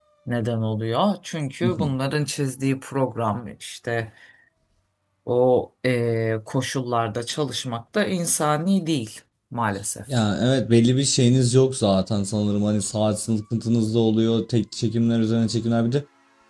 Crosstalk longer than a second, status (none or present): none